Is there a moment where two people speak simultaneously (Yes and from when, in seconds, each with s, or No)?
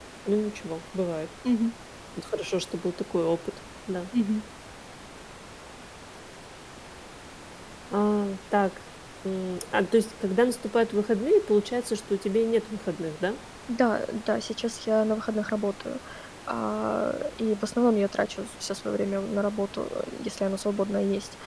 No